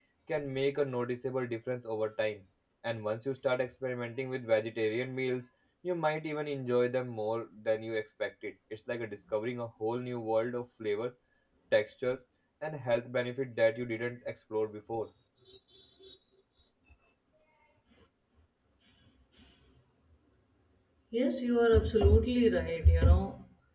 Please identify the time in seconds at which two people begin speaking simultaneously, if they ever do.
none

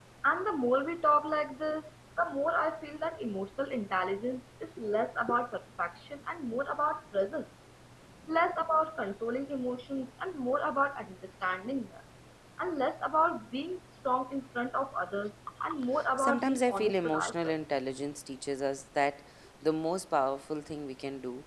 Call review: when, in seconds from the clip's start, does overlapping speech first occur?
15.9 s

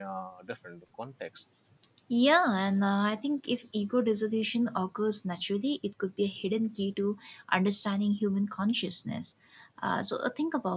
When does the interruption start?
none

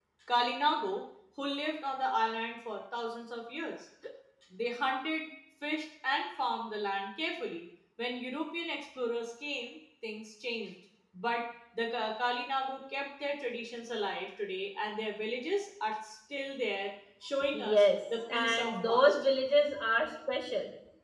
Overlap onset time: 17.5 s

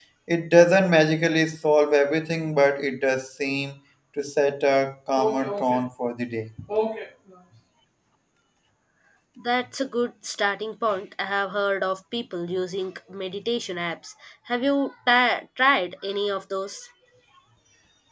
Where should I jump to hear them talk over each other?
none

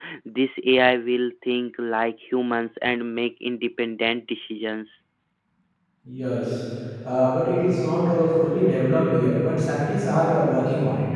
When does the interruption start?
none

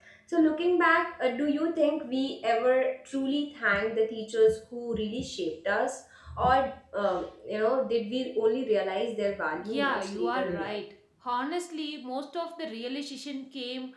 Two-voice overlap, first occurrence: 9.6 s

